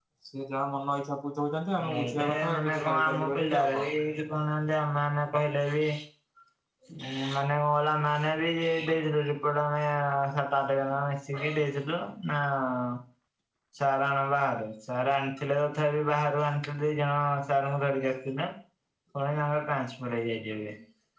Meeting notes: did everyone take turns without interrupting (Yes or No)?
No